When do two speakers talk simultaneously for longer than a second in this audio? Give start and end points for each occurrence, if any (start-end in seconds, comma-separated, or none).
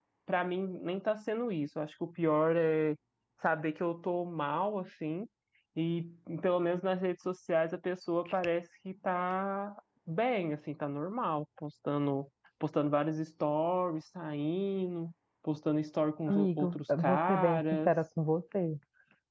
16.3-17.9